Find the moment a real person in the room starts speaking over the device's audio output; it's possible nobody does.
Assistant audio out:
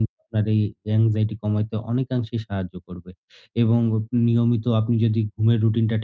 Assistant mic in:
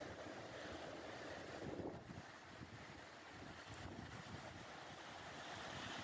none

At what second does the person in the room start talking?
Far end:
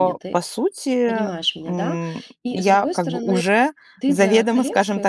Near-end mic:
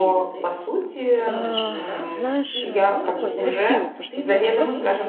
1.2 s

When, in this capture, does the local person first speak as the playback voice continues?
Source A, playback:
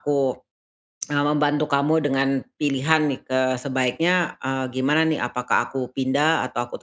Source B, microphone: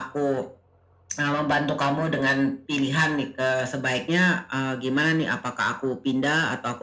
none

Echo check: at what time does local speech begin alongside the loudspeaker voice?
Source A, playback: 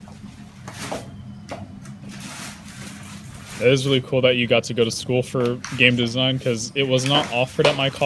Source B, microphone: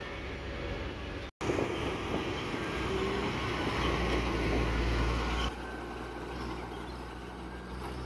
none

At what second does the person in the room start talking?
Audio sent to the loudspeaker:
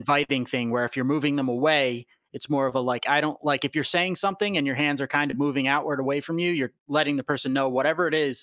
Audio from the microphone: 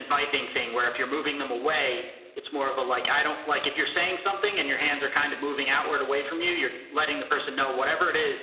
none

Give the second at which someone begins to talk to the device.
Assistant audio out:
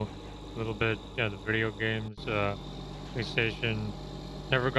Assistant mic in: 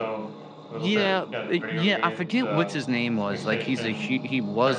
0.7 s

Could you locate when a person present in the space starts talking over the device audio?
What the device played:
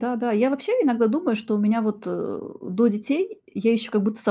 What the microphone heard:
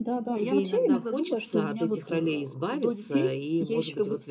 0.4 s

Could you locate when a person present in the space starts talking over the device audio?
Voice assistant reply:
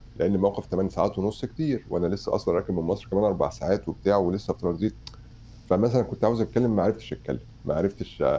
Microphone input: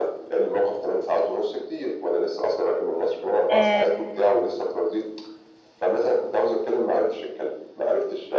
3.5 s

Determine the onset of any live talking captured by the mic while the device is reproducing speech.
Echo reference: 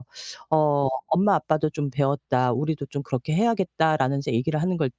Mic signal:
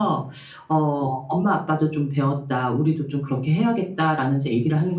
none

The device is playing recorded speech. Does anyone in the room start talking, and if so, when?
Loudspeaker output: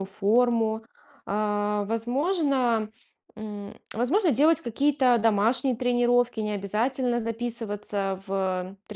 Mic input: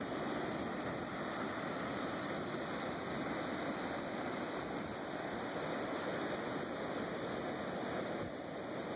none

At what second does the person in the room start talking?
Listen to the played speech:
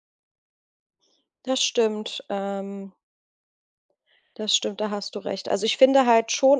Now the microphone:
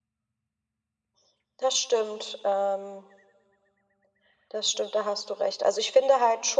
none

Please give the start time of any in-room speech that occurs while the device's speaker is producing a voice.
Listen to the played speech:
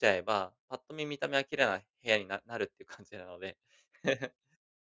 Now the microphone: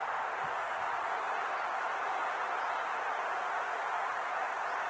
none

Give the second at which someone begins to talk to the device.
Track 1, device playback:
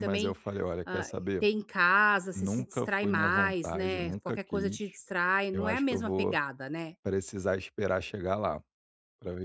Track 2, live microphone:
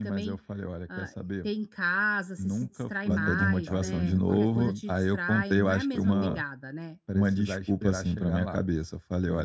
3.0 s

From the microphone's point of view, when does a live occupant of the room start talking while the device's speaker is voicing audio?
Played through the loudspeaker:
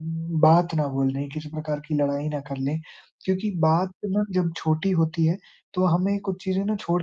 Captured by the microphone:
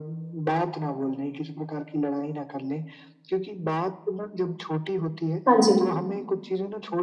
5.5 s

